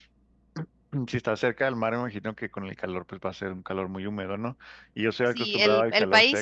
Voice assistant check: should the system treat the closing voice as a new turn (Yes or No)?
Yes